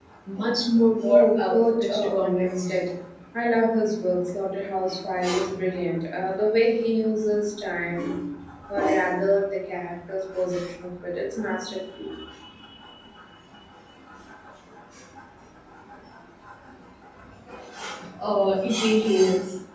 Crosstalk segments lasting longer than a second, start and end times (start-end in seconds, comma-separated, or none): 1.1-2.8